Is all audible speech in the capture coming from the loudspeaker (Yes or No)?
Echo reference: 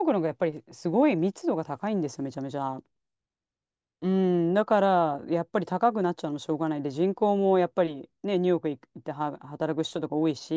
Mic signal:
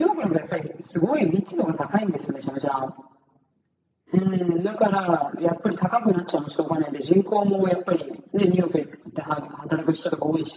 Yes